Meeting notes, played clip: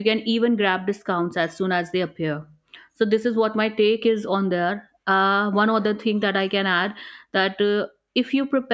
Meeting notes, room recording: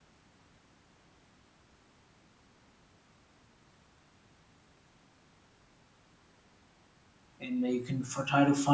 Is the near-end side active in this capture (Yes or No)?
Yes